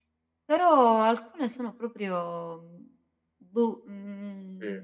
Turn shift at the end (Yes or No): No